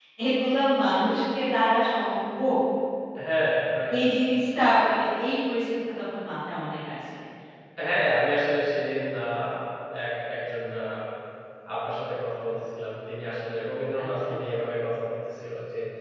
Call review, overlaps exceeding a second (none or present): none